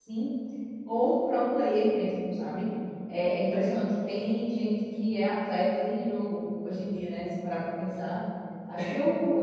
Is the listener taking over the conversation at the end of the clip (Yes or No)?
No